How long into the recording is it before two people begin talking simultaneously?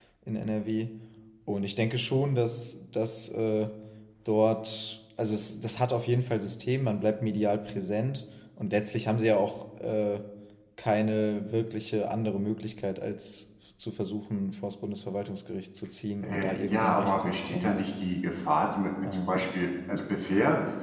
16.2 s

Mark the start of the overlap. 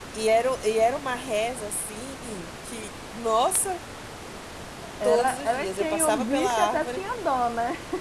5.0 s

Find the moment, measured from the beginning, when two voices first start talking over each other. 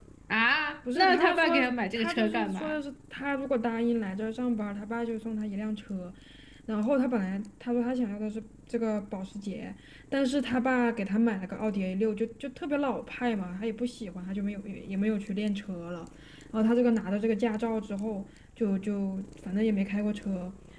0.9 s

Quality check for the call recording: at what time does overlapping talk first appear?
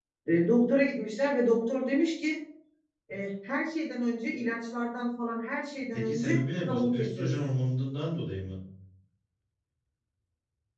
5.9 s

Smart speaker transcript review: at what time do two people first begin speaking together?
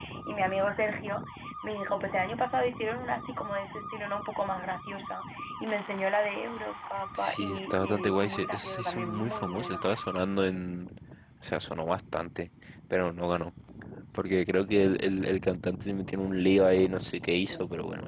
7.2 s

